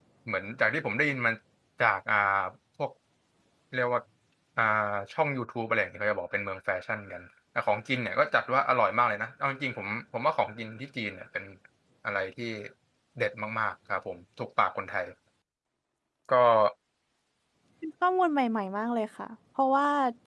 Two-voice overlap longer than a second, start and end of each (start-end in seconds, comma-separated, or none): none